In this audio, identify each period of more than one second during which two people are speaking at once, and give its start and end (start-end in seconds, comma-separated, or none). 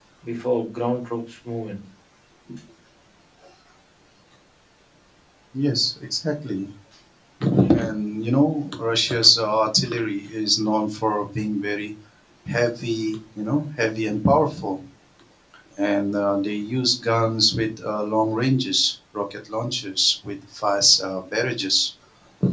none